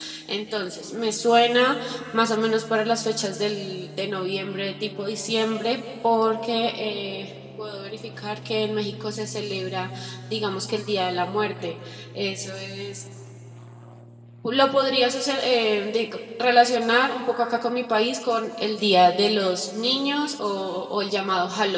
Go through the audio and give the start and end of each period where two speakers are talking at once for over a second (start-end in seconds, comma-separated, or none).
none